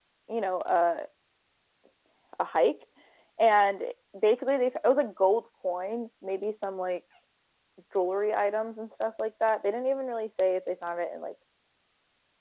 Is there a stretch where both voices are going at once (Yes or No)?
No